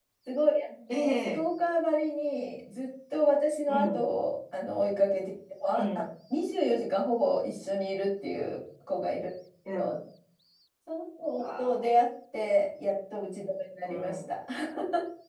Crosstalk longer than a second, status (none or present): none